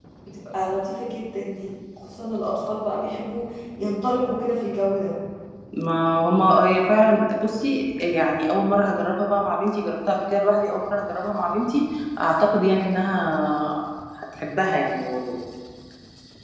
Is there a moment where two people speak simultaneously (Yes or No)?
No